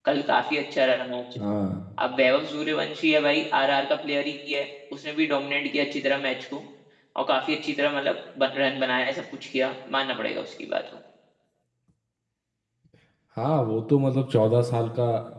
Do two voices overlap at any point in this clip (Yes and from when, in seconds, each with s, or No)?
No